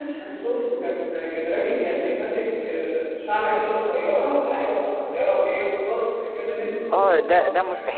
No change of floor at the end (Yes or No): No